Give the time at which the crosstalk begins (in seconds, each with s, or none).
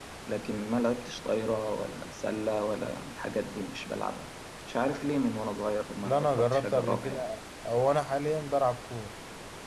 6.0 s